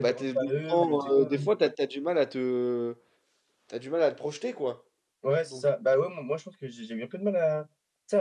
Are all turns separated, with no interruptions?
No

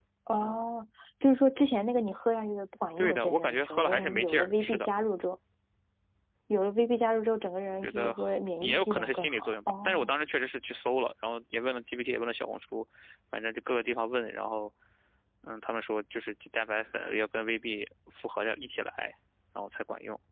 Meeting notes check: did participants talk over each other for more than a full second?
Yes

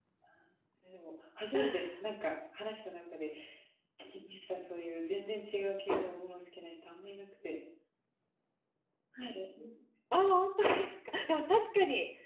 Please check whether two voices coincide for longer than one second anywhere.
No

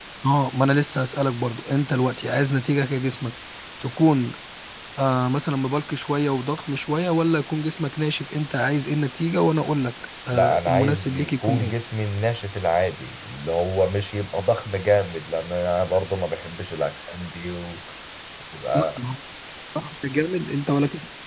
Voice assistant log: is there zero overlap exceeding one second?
No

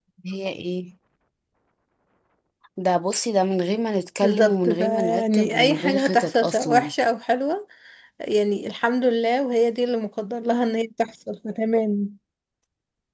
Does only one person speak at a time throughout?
No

